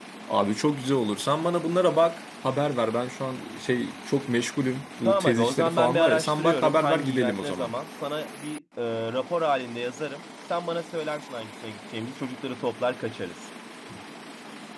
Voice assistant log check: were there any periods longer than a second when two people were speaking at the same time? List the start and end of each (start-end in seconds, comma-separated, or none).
5.0-7.7